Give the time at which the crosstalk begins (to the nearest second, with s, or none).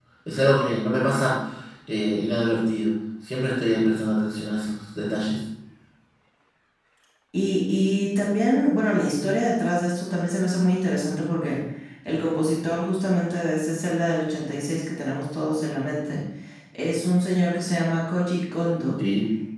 none